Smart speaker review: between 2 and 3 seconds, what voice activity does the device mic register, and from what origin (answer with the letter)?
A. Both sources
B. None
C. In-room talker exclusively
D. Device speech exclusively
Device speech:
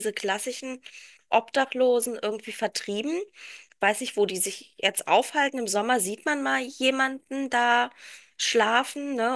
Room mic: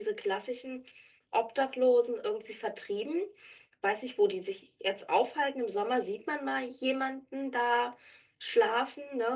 D